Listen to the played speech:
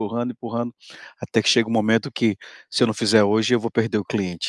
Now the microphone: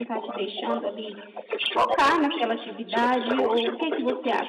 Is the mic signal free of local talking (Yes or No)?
No